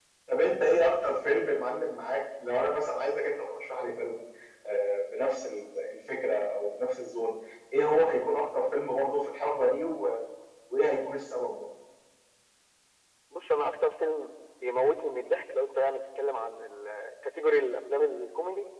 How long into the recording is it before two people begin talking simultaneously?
none

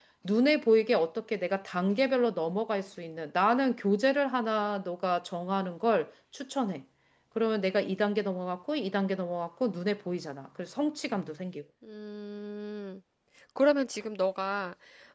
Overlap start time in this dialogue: none

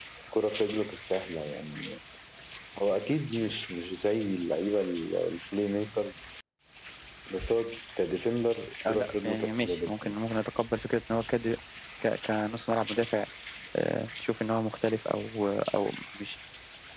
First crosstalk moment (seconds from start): 8.8 s

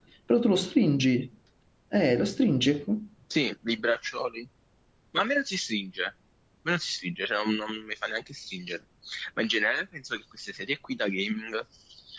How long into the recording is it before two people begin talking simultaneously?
none

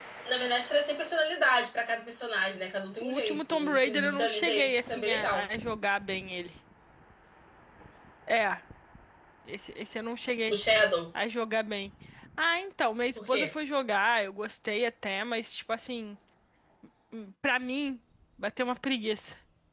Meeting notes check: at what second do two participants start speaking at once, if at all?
3.0 s

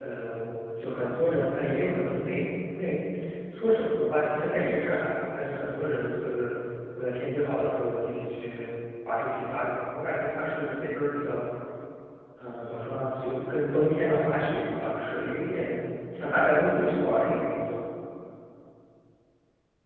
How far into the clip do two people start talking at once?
none

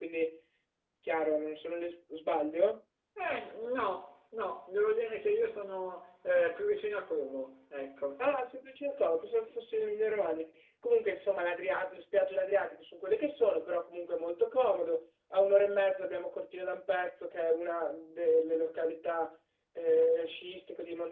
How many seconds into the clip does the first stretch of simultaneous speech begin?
none

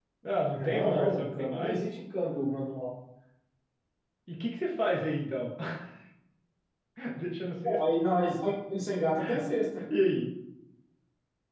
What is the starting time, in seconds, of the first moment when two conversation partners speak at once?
0.5 s

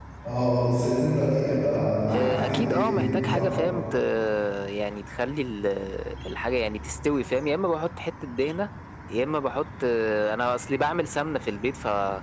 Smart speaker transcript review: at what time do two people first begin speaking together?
2.1 s

